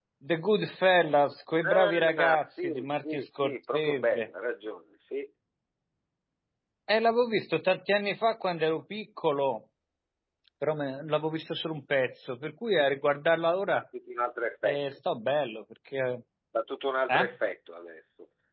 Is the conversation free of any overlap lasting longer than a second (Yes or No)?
No